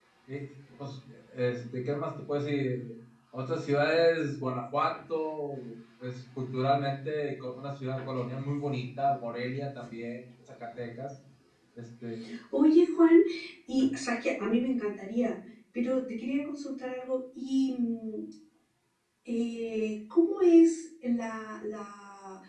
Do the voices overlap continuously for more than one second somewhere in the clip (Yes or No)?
No